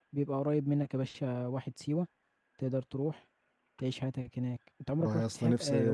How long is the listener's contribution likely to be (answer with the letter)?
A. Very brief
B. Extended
B